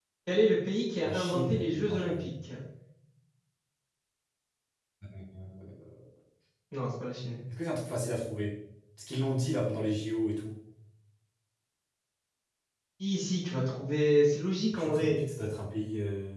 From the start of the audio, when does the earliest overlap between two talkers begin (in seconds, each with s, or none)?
1.0 s